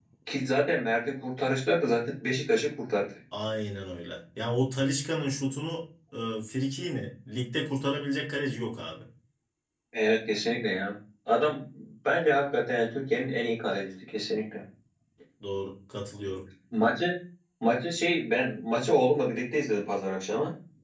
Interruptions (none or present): none